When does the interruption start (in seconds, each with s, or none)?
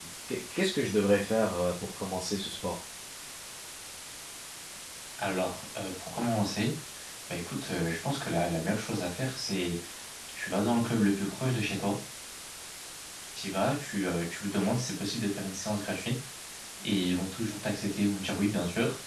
none